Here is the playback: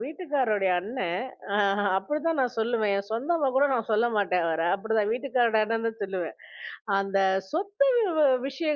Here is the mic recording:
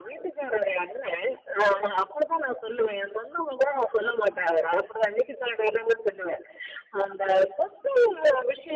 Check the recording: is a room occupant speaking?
No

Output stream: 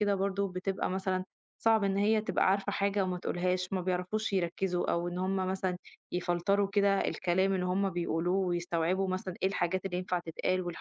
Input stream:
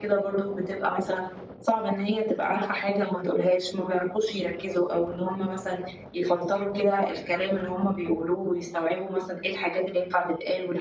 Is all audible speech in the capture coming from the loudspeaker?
Yes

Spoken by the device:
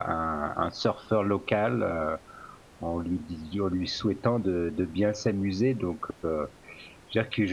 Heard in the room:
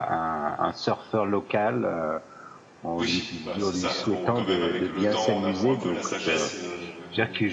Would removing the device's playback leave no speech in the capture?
No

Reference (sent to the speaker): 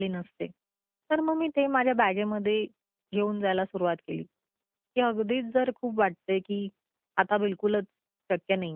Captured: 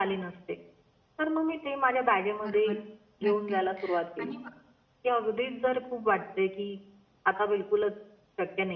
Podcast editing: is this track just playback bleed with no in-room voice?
No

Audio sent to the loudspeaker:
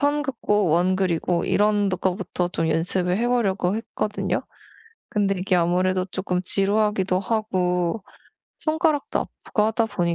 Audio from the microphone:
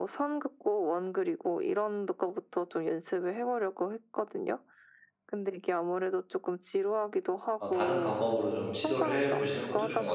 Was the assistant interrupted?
Yes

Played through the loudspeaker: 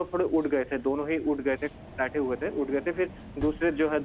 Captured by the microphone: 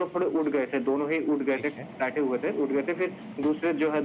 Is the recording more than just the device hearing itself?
Yes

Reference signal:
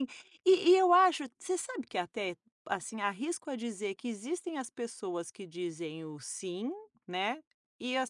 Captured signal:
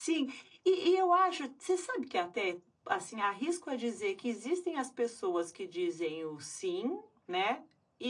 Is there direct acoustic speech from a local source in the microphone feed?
No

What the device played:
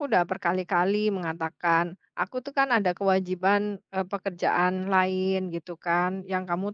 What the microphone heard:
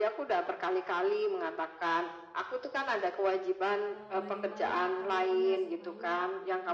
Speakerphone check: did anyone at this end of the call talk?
Yes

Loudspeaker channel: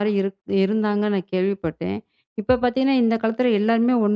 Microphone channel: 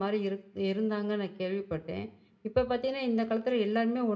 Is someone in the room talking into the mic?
No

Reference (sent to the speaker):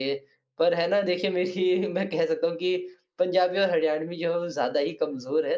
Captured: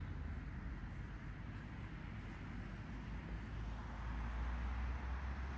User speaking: No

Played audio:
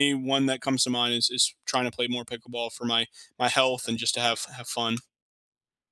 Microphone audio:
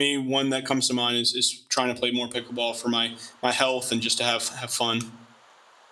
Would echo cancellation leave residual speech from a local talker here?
No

